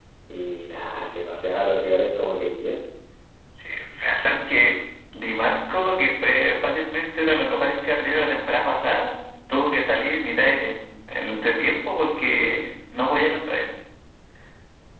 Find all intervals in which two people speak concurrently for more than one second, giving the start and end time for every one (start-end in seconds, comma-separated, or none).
none